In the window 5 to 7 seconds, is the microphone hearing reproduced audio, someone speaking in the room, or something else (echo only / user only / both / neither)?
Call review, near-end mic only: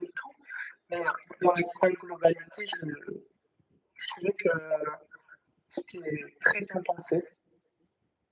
echo only